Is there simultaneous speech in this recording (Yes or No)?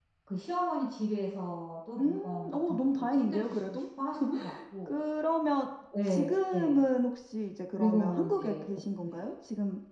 Yes